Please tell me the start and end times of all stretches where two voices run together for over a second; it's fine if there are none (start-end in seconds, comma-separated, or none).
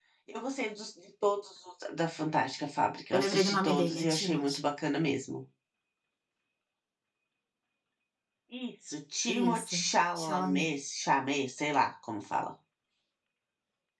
3.1-4.6